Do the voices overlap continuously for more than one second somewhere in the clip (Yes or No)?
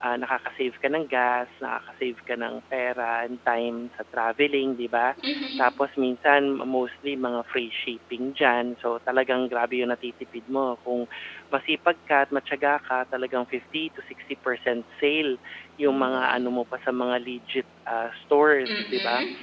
No